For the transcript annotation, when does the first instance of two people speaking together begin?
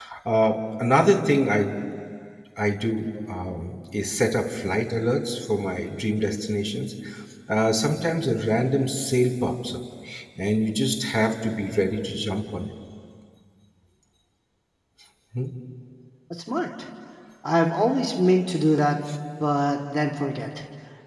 none

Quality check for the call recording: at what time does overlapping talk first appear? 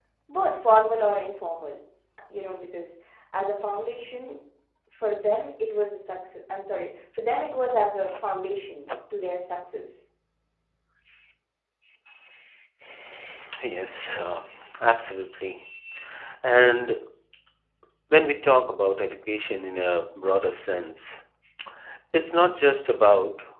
none

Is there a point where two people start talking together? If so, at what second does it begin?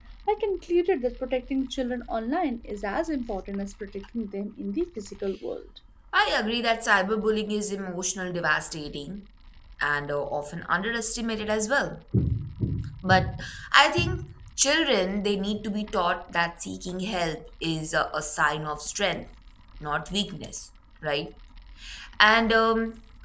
none

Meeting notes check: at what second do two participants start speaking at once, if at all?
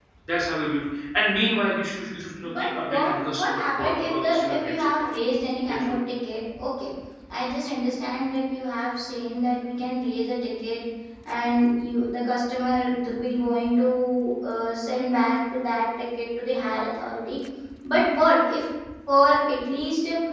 2.4 s

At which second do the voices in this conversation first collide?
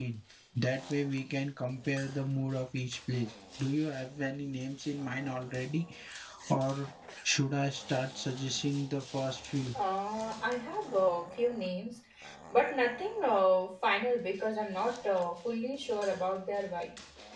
none

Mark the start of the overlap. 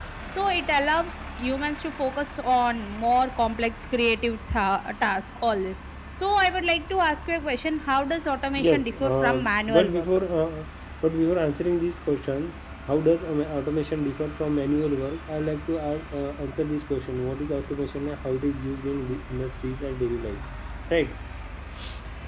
8.6 s

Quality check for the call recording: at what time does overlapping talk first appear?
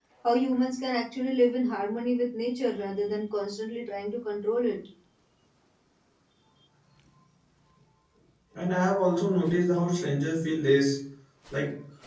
none

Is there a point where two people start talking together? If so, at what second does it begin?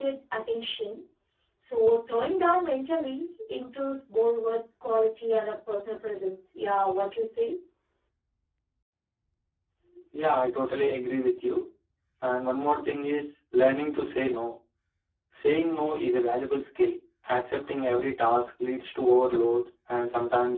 none

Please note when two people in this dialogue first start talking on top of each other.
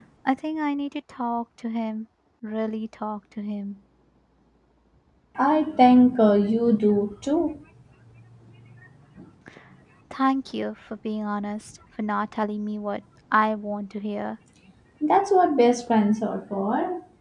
none

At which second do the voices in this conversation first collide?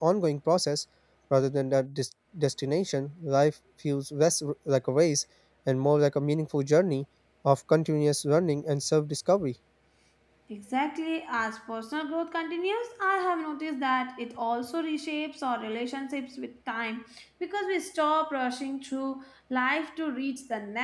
none

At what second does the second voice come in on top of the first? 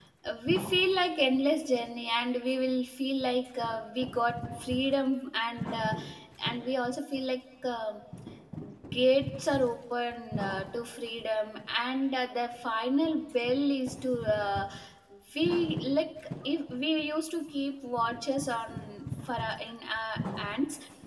none

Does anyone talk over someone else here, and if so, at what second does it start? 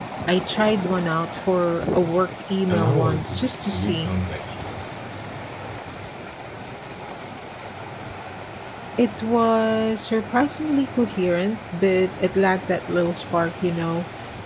2.7 s

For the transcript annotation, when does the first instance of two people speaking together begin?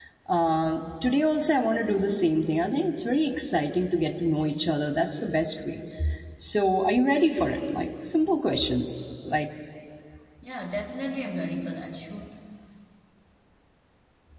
none

